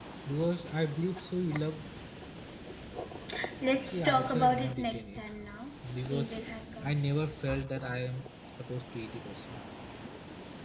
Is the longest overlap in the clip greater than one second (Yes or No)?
Yes